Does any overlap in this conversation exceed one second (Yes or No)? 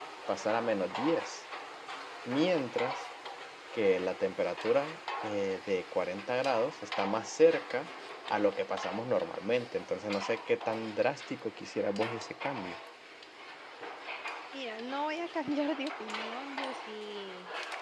No